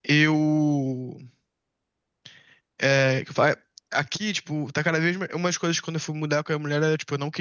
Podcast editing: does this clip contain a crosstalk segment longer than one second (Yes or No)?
No